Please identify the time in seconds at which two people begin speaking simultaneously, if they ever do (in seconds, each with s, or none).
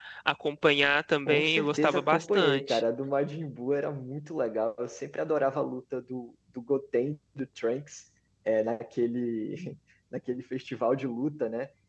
1.3 s